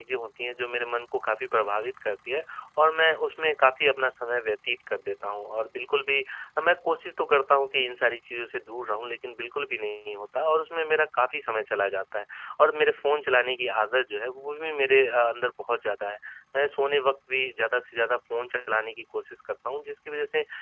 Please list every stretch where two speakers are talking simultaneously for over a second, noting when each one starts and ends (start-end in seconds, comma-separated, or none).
none